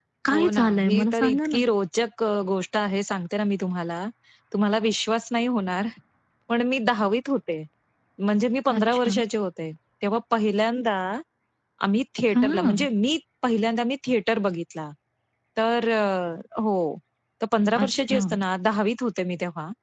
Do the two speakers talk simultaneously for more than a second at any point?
Yes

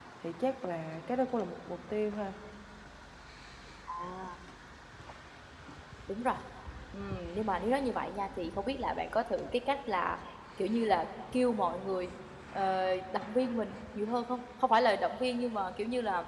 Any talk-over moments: No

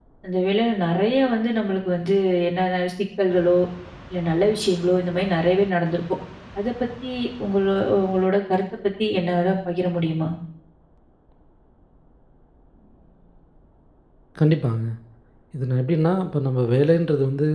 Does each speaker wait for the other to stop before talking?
Yes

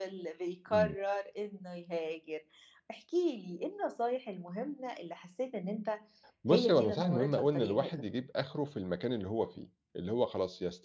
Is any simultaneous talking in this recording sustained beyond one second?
Yes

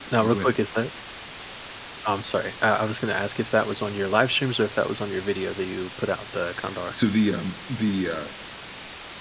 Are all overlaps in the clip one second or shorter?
Yes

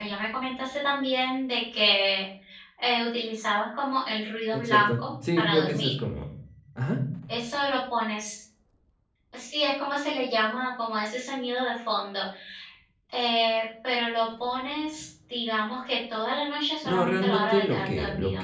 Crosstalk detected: Yes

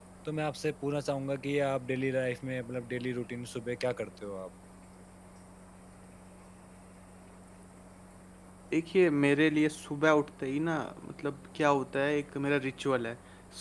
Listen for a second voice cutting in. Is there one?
No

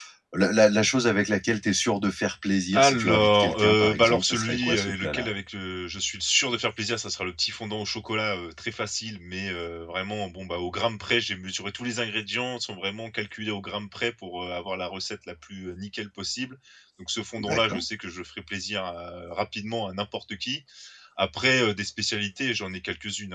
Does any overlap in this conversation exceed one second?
Yes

